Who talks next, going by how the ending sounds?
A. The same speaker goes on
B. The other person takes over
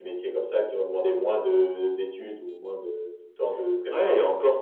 B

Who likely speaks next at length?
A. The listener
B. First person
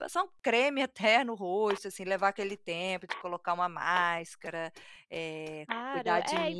A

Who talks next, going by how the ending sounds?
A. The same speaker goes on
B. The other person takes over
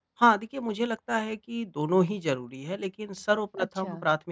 A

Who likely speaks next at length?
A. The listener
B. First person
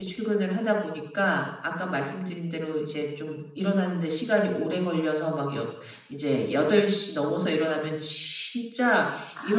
B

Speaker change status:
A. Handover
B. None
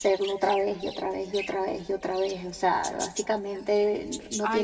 A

